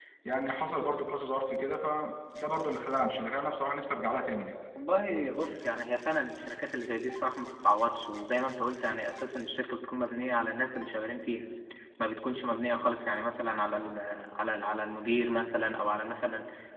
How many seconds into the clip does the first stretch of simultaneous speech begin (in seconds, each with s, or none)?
none